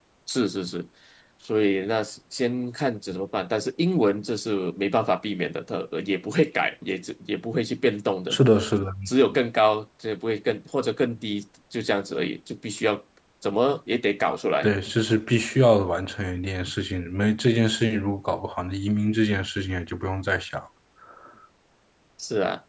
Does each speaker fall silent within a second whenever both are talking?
Yes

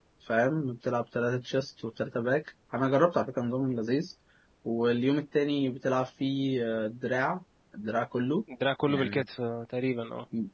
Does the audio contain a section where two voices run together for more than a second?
No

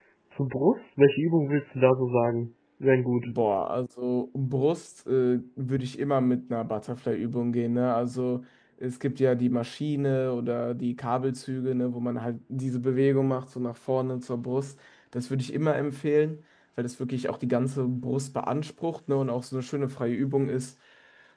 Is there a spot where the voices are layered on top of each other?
No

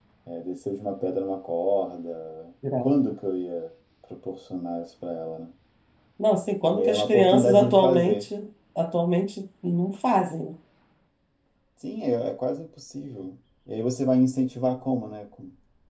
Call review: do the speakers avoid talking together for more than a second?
No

